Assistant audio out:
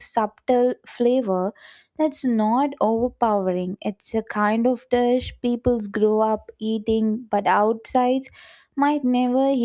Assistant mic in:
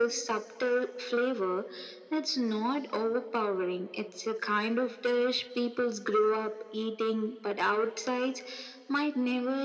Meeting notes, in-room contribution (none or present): none